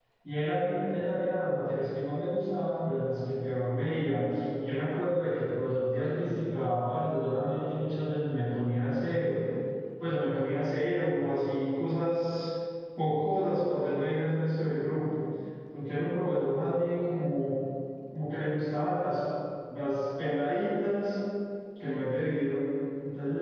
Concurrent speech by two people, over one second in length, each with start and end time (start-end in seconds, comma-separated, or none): none